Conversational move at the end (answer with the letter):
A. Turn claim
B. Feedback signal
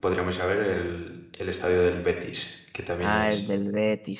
A